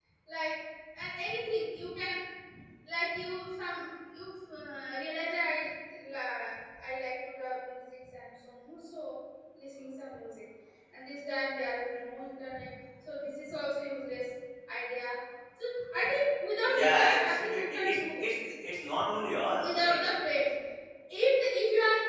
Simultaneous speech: Yes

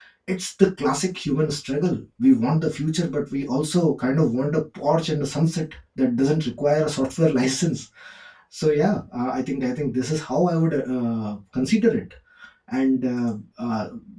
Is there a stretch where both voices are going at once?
No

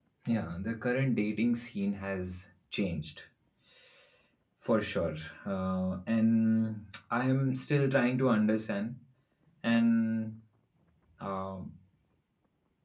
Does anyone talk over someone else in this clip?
No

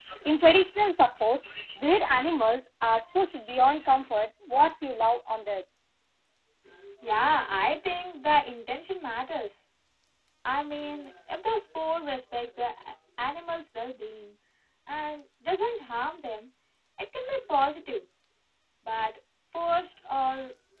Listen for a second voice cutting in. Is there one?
No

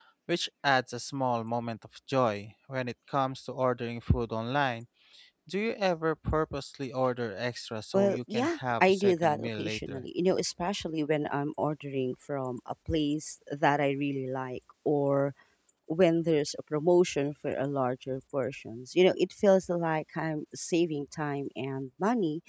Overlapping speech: Yes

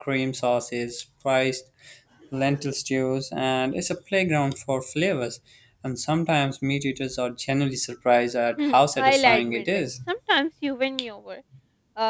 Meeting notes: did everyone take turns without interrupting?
No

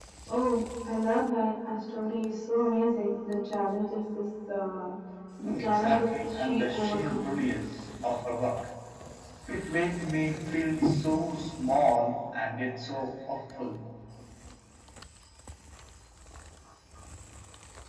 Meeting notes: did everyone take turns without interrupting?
No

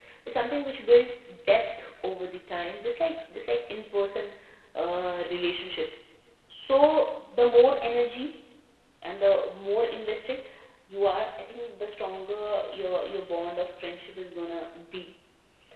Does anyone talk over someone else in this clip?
No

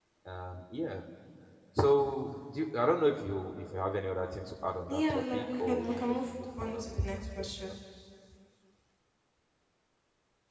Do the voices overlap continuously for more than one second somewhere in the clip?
Yes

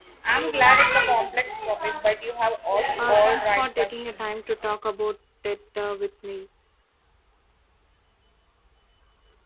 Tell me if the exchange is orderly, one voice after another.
No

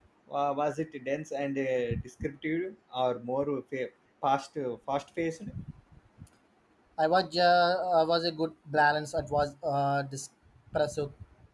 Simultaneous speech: No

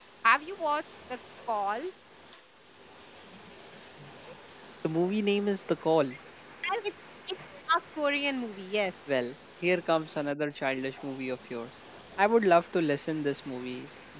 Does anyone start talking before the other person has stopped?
No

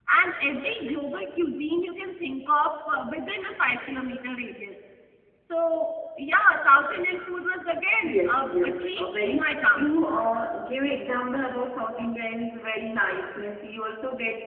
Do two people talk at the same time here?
Yes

